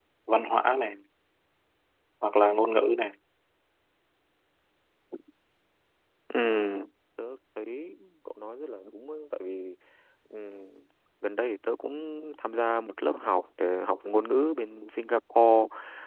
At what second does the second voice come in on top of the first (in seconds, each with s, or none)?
none